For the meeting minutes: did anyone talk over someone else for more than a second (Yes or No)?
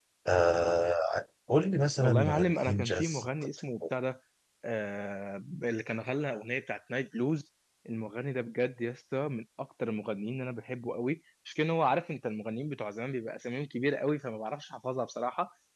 Yes